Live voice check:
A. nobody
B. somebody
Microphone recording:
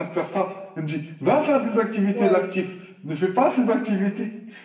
B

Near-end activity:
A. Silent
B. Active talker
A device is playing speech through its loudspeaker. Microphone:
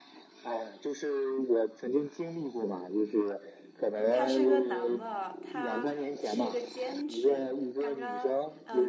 B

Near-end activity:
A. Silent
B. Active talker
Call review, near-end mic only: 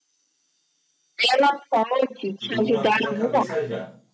B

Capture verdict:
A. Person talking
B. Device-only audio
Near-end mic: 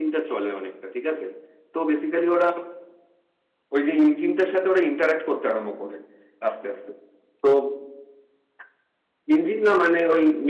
B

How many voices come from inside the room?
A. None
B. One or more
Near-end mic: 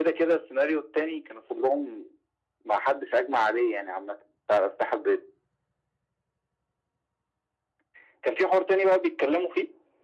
A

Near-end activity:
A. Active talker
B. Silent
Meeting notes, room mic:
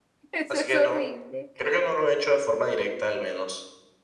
A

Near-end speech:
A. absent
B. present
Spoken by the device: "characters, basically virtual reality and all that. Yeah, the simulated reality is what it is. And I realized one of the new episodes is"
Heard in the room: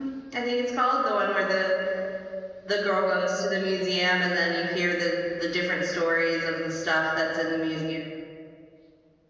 B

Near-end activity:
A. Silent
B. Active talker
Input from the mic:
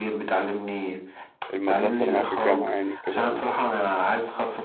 B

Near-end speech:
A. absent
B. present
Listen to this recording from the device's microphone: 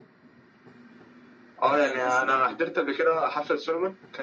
B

